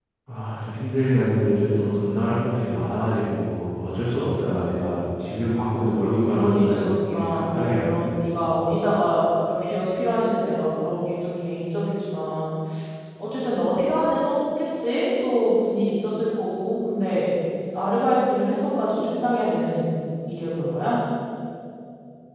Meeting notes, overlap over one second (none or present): present